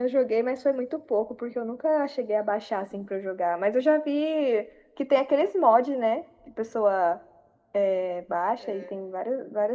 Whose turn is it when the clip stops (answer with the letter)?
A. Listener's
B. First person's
B